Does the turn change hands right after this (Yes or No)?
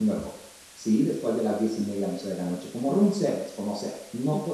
Yes